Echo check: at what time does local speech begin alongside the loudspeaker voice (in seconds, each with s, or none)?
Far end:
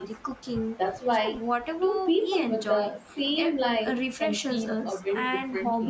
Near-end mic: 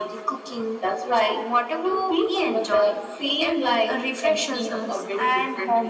none